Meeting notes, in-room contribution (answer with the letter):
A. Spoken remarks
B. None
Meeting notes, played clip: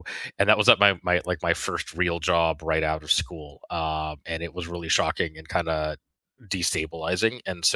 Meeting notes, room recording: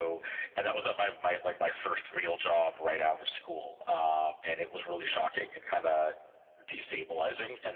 B